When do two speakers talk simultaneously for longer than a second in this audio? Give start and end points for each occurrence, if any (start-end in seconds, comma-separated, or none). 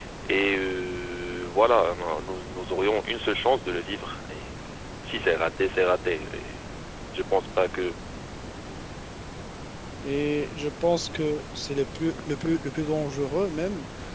none